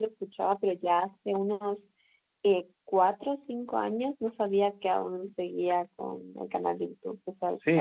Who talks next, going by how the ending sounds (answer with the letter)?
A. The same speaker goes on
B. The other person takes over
B